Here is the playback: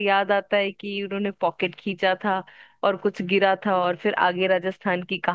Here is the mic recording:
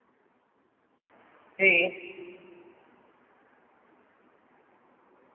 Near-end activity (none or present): present